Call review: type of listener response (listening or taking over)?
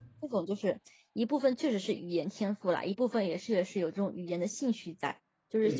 taking over